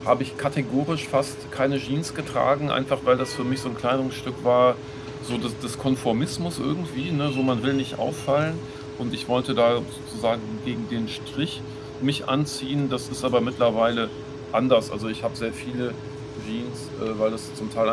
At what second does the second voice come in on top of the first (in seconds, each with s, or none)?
none